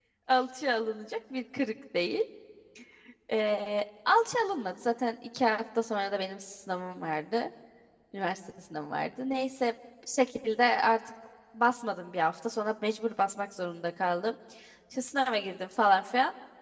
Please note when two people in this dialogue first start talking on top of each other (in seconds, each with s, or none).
none